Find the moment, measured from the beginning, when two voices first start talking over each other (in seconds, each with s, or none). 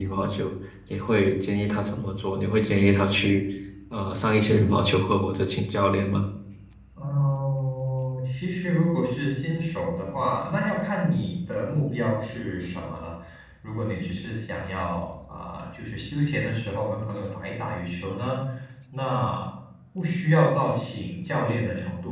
none